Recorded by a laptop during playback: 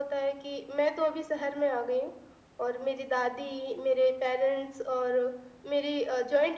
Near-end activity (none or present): none